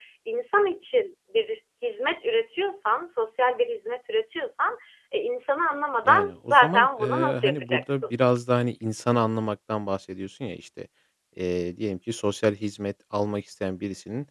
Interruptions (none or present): present